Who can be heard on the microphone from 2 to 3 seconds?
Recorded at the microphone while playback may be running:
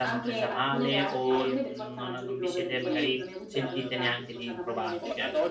both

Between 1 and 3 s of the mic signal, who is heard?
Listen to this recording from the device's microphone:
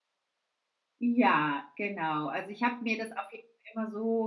user only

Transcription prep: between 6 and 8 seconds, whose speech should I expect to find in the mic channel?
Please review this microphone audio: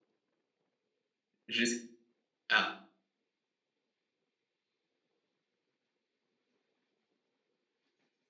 neither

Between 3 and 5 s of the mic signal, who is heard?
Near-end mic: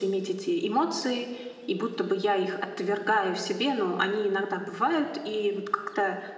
echo only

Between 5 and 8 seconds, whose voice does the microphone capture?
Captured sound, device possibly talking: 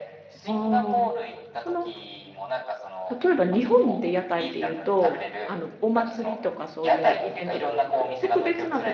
both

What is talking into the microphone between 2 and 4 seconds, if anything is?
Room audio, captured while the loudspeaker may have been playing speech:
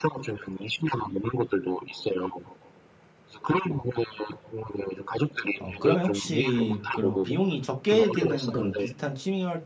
echo only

